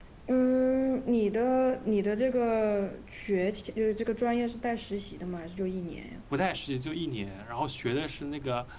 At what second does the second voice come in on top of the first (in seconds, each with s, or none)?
none